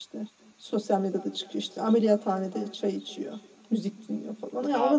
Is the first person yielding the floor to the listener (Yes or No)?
No